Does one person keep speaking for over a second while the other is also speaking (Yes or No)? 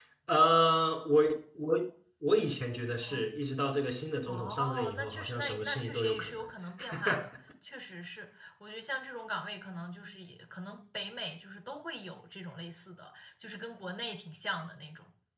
Yes